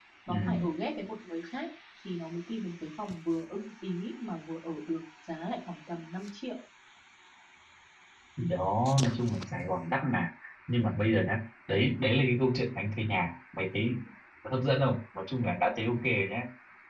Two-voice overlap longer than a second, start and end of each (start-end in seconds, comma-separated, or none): none